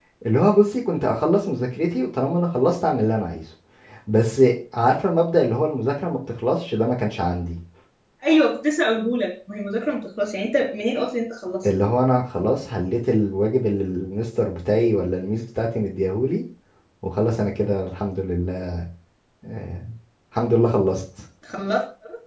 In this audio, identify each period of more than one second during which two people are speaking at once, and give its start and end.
none

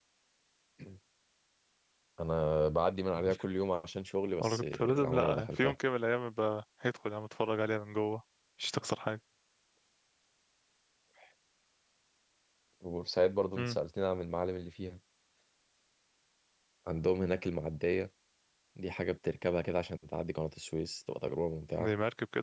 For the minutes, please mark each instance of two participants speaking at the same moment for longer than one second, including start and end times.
4.4-5.8

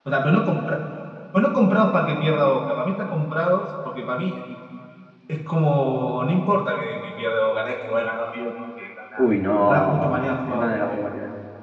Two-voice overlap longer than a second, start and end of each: 9.6-11.0

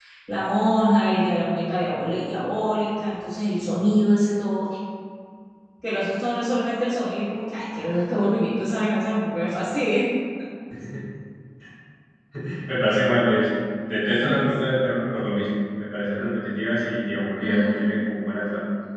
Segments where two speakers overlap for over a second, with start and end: none

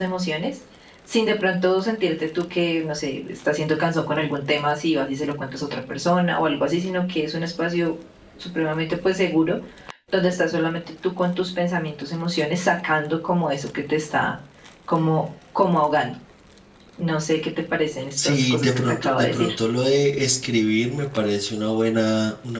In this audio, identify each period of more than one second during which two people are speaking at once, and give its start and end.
18.2-19.5

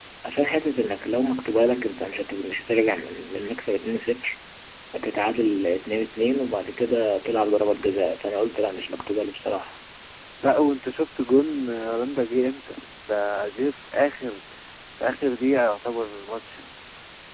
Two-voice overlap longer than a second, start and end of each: none

